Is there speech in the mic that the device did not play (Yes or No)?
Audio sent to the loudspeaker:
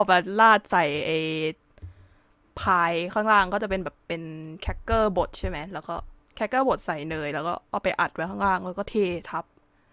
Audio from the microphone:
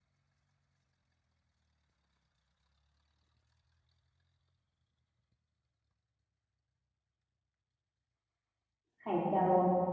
Yes